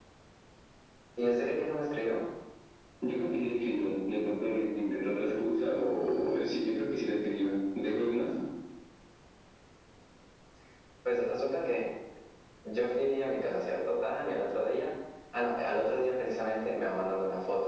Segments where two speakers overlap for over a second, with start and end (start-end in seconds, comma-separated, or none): none